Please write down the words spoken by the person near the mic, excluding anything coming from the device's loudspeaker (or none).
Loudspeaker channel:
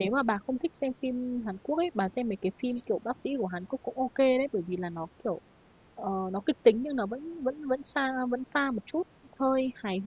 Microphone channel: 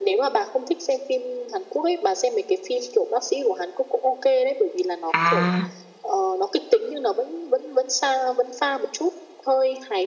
À,